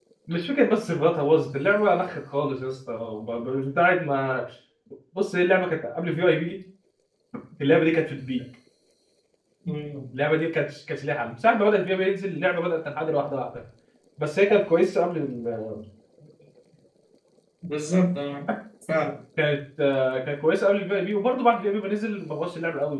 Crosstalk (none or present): none